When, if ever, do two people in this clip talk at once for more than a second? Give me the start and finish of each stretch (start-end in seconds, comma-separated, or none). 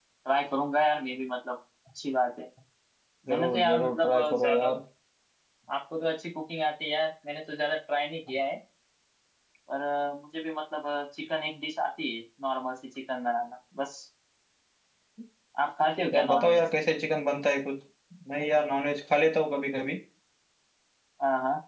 3.3-4.7